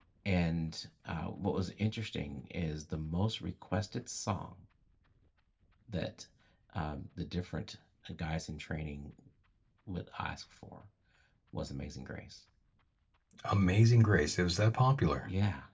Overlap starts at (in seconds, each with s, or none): none